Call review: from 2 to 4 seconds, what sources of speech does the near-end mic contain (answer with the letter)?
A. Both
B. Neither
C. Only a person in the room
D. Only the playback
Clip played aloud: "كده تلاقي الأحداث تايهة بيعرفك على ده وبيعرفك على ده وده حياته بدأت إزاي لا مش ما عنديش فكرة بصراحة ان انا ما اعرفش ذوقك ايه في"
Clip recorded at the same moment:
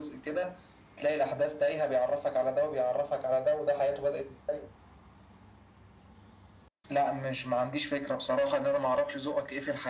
D